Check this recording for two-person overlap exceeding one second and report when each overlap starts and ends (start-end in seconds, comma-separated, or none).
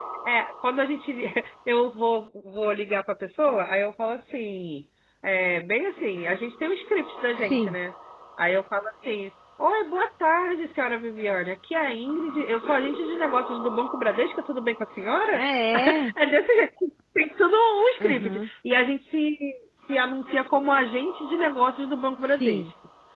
none